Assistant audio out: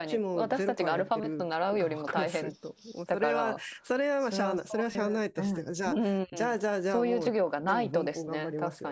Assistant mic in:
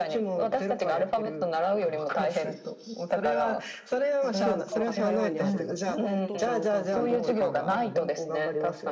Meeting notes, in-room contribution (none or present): present